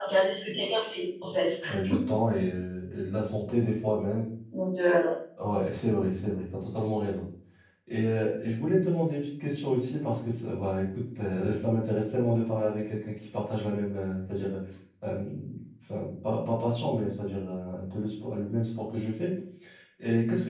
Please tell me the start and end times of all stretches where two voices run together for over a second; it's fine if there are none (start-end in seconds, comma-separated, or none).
none